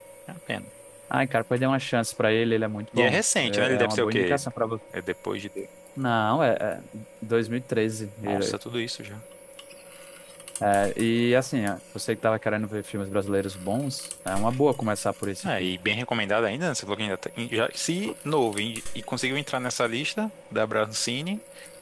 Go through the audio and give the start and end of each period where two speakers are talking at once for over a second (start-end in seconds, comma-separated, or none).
3.0-4.4